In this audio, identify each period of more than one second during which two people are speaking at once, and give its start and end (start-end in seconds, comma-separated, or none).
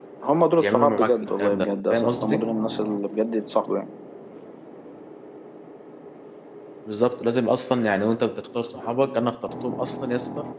0.6-2.4